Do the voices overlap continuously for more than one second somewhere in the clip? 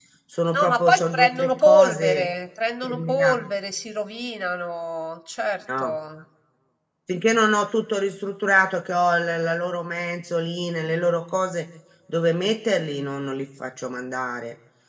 Yes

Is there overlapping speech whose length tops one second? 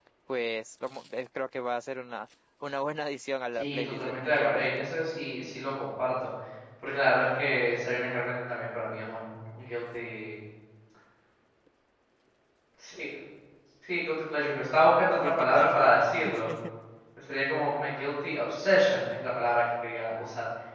Yes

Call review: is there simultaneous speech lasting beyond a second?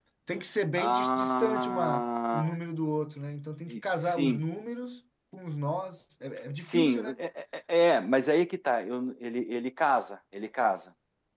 Yes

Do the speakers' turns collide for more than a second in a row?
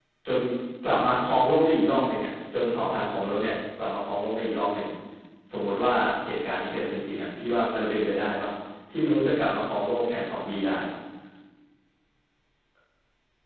No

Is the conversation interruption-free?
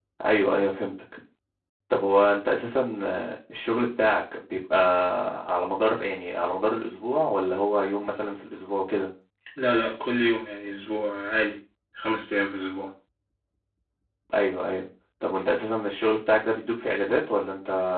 Yes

